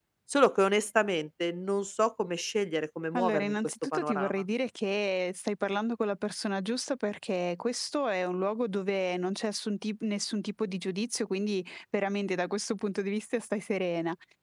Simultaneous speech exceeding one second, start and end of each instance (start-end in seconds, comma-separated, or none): 3.2-4.4